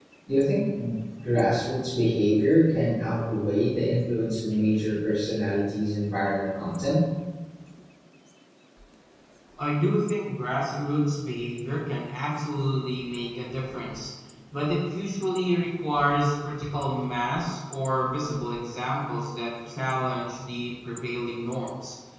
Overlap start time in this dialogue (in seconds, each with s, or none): none